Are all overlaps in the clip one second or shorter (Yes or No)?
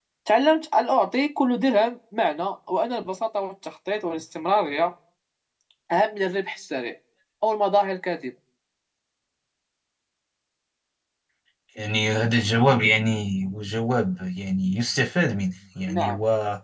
Yes